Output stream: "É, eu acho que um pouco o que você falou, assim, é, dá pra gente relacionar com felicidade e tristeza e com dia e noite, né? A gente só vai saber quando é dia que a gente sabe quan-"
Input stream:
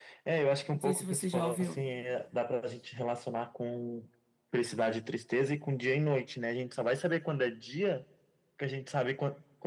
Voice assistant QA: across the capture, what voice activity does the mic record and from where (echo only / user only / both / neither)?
both